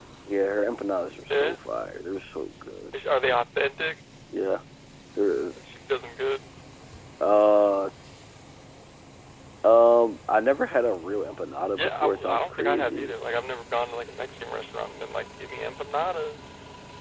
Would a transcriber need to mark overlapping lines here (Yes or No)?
Yes